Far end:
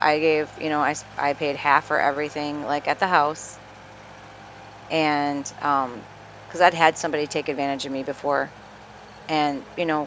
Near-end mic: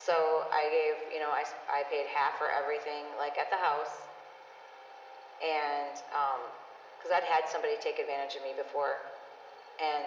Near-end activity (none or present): none